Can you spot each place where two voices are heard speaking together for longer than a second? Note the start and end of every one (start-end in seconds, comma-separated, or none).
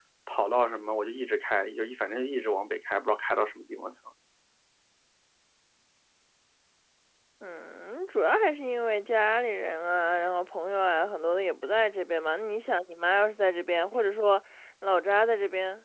none